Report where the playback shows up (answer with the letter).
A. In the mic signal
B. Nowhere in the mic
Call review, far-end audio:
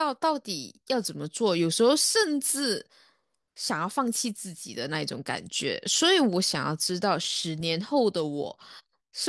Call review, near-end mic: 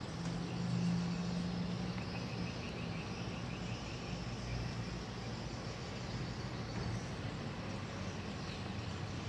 B